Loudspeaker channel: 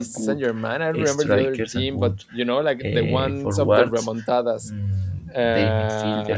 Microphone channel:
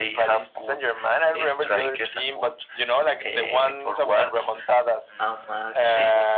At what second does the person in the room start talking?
5.2 s

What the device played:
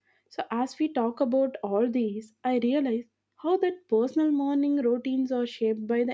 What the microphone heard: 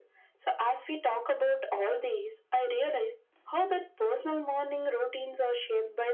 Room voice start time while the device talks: none

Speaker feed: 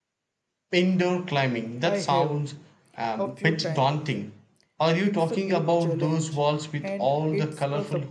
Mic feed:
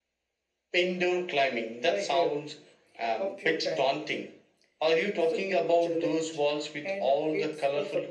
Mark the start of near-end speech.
none

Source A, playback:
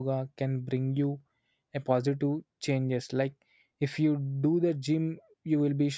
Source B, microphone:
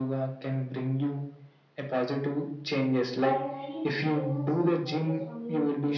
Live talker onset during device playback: 3.2 s

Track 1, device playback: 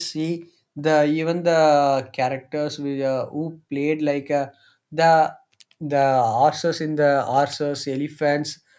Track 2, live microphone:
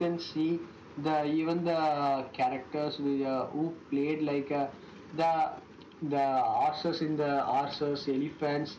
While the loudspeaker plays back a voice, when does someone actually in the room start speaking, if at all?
none

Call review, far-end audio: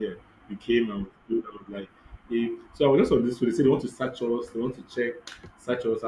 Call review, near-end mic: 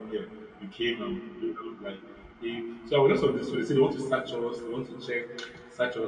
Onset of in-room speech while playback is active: none

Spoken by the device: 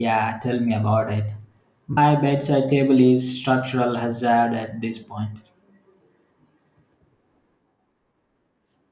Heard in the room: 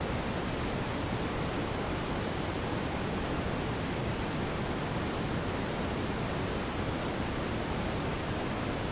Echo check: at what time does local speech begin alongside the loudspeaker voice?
none

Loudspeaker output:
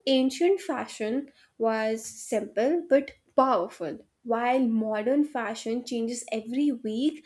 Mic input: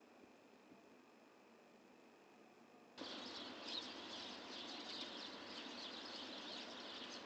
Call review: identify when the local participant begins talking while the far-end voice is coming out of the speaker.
none

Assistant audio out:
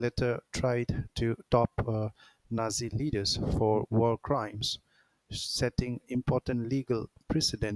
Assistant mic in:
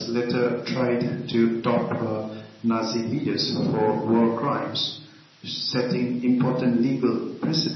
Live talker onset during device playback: none

